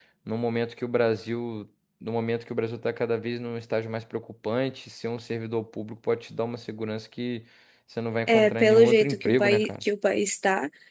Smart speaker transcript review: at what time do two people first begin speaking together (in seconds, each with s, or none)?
8.3 s